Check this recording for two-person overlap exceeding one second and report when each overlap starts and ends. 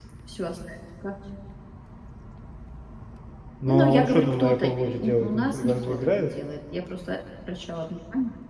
3.6-6.3

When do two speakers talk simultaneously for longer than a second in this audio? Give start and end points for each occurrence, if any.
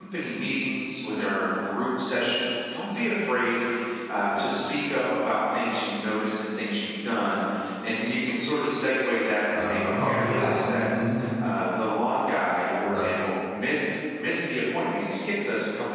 9.5-10.9

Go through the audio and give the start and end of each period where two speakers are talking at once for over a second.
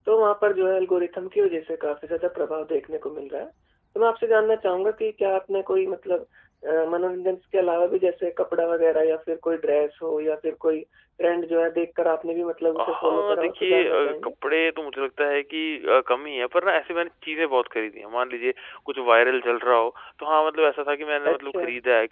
12.8-14.3

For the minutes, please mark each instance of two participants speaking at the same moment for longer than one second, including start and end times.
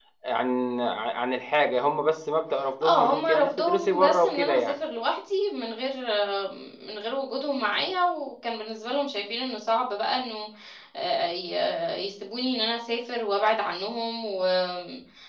2.8-4.7

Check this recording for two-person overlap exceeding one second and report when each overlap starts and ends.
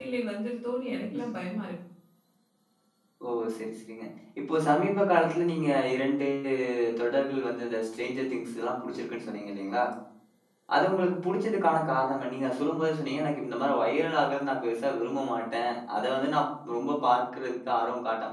none

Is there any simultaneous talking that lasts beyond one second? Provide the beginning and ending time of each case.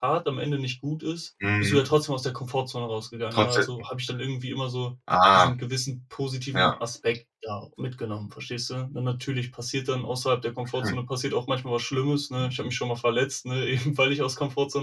none

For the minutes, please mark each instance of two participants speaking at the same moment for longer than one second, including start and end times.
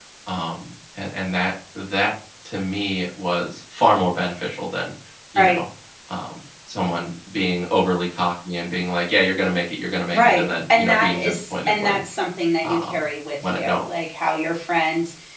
10.1-12.0

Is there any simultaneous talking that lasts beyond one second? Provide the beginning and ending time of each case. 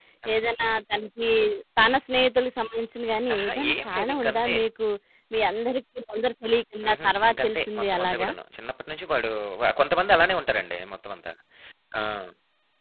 3.3-4.5, 6.9-8.3

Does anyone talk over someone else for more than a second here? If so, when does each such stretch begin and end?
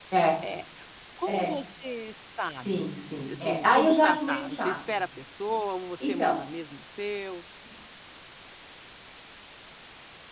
2.6-5.0

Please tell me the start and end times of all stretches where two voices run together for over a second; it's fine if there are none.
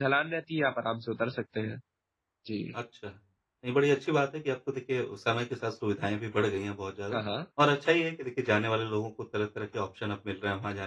none

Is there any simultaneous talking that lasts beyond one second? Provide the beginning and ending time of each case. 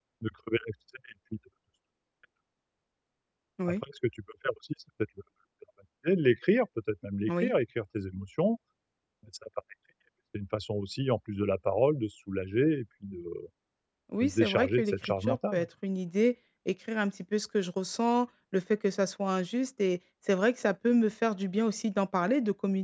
14.2-15.6

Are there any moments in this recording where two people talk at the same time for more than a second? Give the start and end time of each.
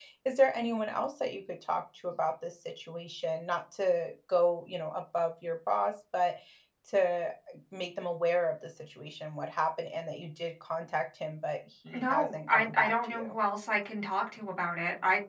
11.9-13.3

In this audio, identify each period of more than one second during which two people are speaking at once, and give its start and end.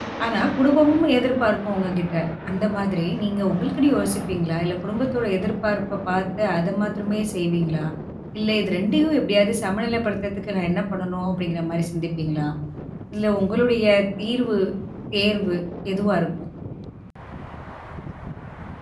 none

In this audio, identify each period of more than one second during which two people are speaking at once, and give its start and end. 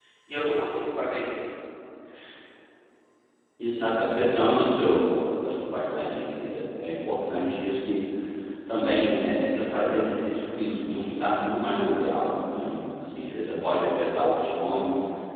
none

